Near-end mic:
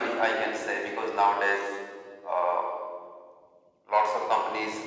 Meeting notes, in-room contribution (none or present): none